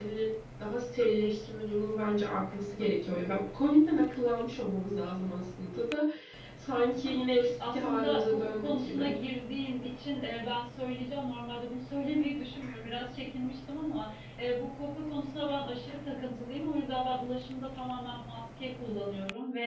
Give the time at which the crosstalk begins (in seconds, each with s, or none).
7.6 s